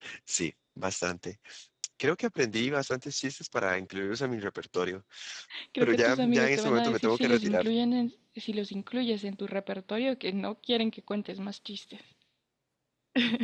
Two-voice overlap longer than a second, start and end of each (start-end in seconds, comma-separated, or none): 5.8-7.7